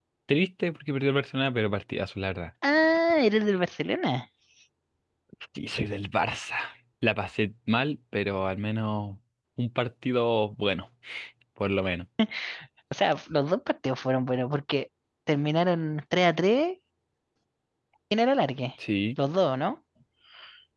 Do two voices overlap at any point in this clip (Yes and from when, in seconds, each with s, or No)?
No